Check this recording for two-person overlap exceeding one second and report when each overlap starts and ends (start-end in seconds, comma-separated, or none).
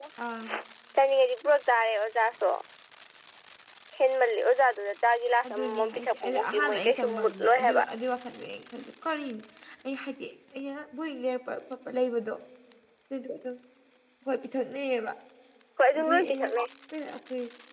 5.4-7.8